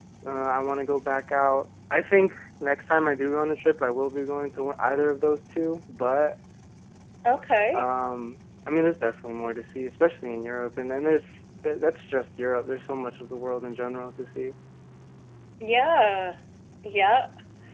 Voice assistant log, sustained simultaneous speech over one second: none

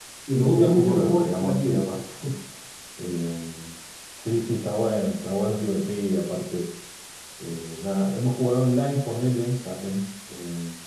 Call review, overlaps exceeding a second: present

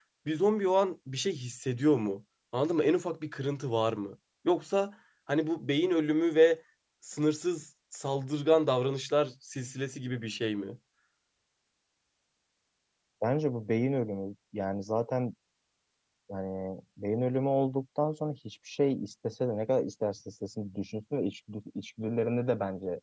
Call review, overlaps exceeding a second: none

